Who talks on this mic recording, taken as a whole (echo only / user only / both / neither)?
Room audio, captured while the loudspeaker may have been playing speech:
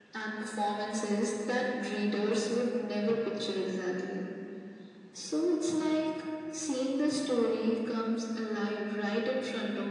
echo only